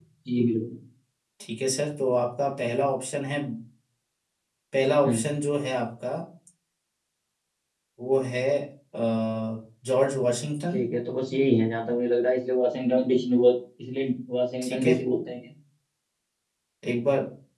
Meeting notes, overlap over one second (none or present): none